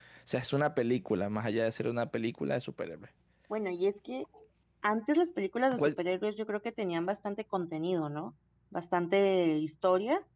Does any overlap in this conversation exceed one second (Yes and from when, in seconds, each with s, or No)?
No